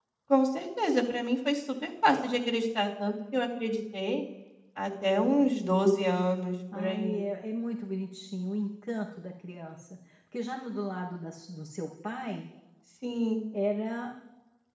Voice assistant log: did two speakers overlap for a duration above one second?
No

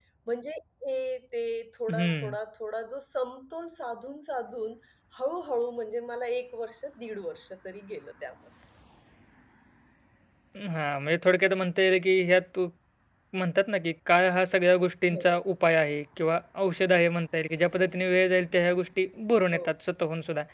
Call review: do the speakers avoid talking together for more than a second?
Yes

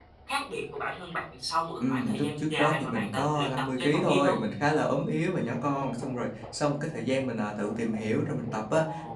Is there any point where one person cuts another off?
Yes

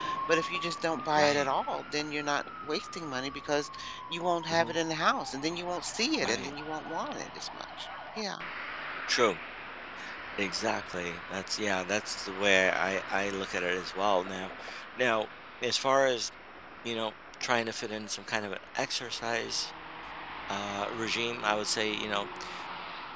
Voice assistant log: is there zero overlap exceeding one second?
Yes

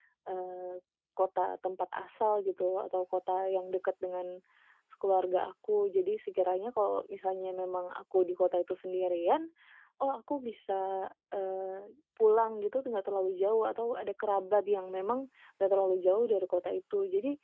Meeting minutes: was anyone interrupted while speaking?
No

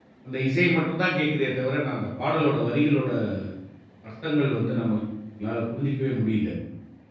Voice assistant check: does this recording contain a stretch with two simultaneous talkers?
No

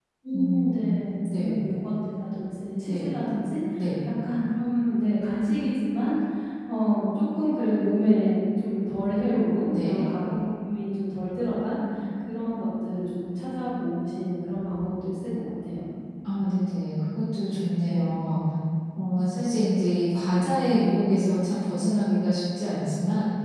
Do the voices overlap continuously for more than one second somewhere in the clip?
No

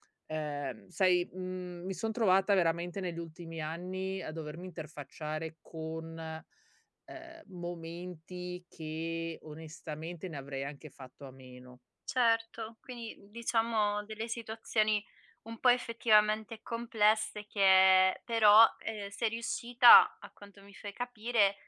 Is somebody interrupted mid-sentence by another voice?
No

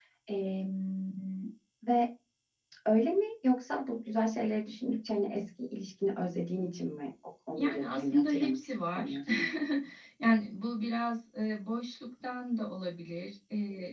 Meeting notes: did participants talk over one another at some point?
Yes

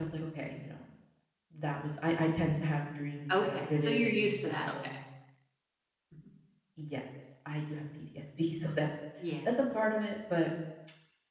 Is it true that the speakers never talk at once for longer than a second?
No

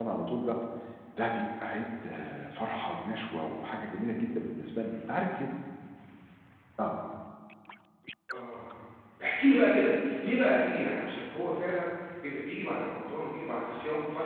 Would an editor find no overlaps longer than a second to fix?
Yes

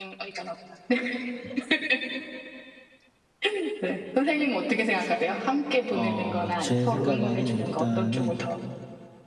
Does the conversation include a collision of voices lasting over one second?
Yes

